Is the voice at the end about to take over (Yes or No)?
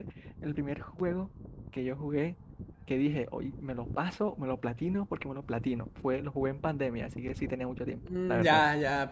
Yes